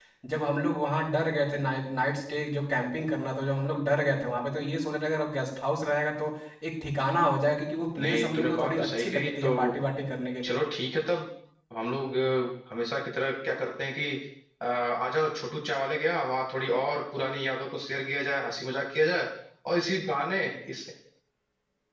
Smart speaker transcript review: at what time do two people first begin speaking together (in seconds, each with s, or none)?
7.9 s